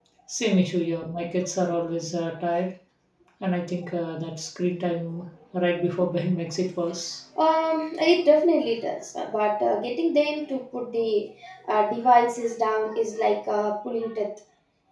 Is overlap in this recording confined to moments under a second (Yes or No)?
Yes